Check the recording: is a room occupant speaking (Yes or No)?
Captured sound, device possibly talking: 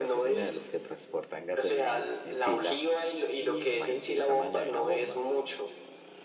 Yes